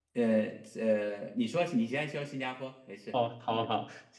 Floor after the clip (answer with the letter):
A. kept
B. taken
B